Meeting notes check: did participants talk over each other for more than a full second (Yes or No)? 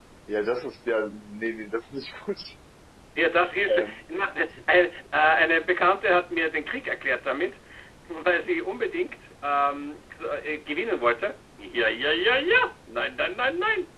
No